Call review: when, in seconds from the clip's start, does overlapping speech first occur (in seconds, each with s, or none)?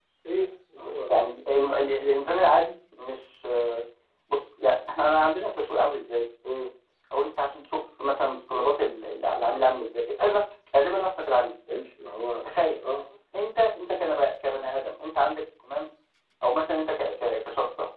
none